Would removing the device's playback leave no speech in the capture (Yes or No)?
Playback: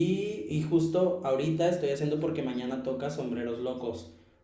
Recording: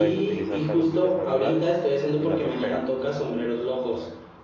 No